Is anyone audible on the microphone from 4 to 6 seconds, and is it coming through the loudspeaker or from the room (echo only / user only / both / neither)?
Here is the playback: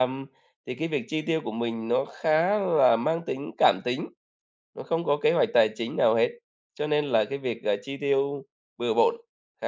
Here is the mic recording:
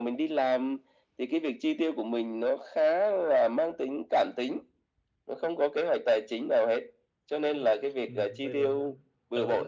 echo only